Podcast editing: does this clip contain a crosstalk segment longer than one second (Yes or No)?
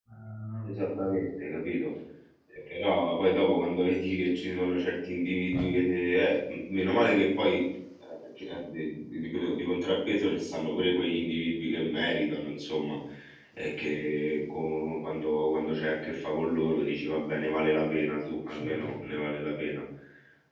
No